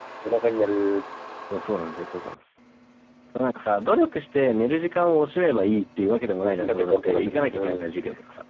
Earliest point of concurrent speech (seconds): 6 s

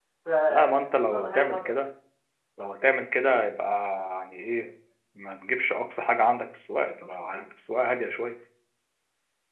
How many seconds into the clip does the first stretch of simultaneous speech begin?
1 s

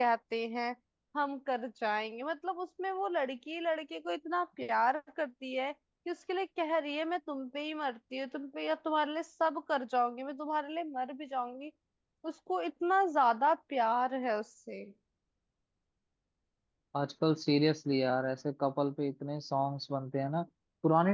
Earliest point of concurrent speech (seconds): none

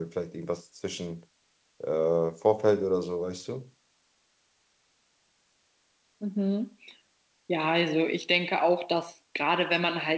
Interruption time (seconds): none

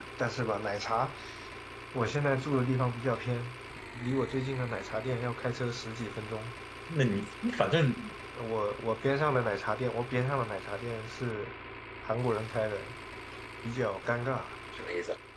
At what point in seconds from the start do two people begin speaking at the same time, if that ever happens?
none

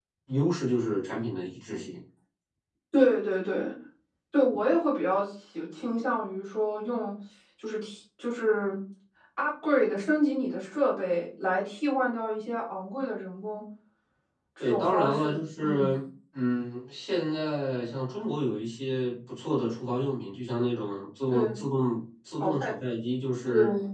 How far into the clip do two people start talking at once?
15 s

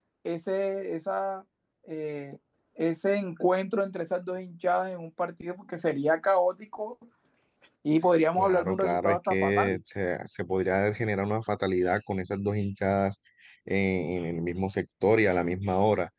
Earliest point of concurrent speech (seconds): 8 s

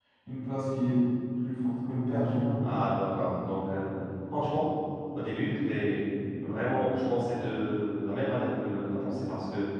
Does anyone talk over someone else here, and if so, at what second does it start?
none

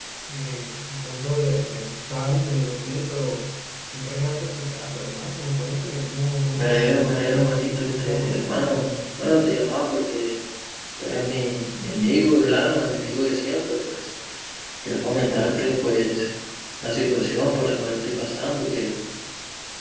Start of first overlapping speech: 7 s

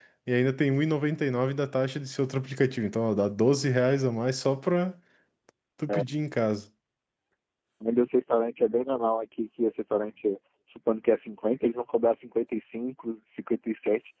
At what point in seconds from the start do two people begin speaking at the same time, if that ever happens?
none

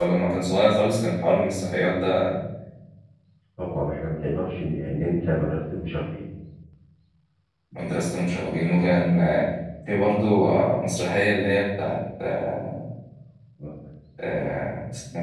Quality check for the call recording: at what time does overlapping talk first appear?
none

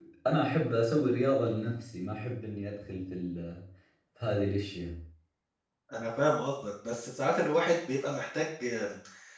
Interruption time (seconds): none

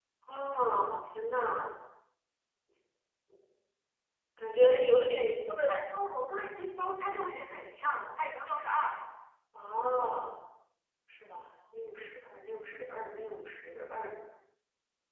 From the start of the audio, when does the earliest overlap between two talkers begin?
none

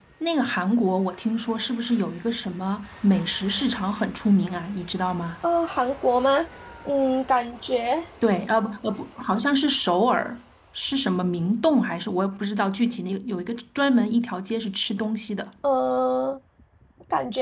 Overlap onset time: none

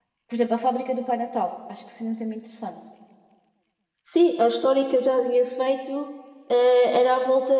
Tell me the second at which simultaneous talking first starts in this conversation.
none

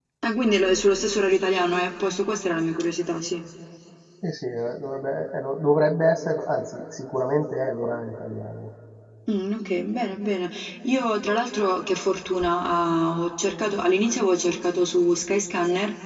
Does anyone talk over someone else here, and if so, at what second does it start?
none

